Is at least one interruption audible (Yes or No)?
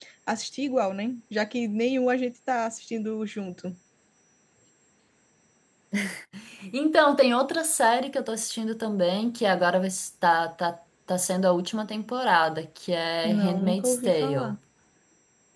Yes